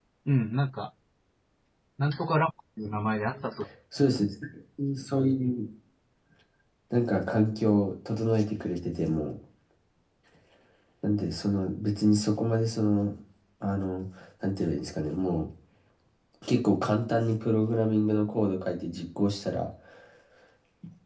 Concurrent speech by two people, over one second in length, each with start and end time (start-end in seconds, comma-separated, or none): none